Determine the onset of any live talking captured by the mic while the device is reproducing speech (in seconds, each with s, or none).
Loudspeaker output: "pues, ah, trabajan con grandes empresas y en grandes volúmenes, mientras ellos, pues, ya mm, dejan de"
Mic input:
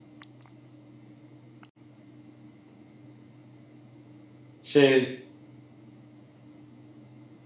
4.6 s